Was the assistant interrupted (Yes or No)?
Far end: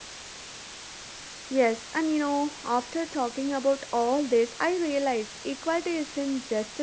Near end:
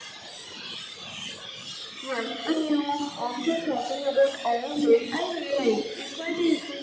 No